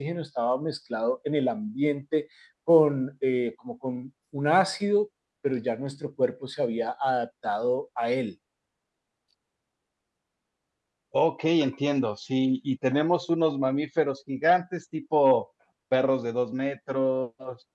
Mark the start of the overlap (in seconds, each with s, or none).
none